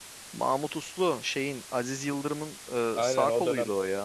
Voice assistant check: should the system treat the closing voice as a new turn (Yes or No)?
Yes